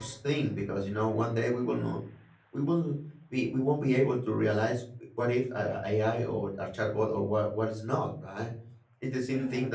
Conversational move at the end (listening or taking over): listening